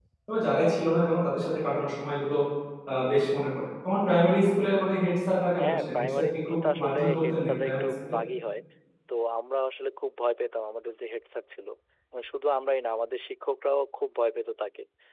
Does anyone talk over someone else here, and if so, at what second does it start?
5.6 s

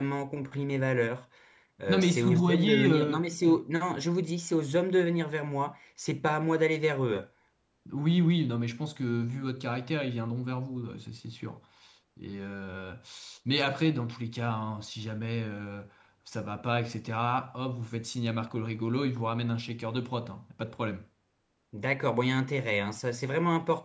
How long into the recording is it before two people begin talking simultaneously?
1.9 s

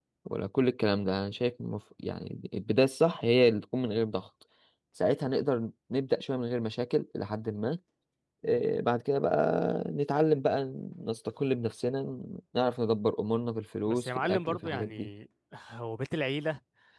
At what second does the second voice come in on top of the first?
13.9 s

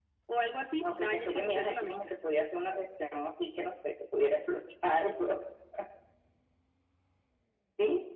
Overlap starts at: 0.8 s

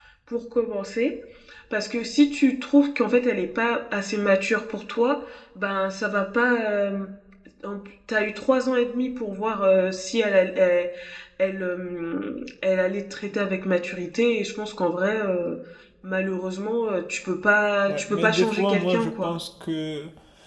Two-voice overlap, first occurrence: 17.9 s

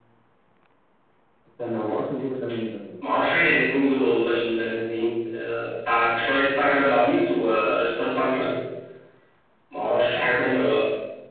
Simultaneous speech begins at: none

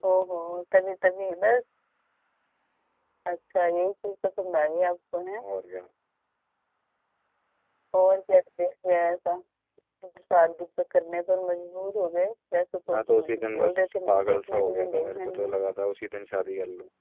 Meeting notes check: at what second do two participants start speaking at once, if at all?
12.9 s

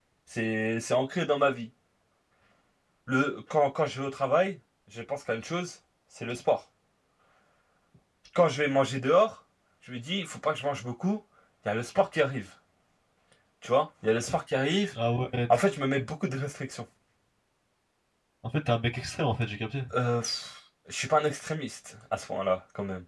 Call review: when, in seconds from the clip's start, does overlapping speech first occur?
none

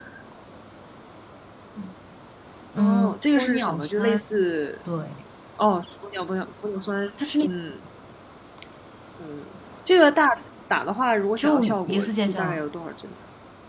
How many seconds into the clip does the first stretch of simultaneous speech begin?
2.8 s

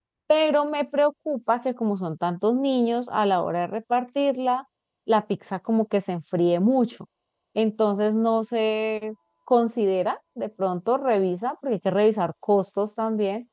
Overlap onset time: none

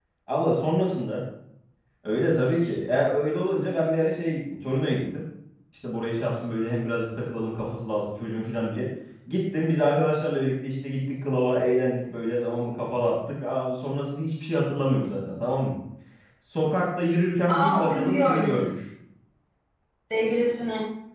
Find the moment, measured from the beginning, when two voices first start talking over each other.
17.5 s

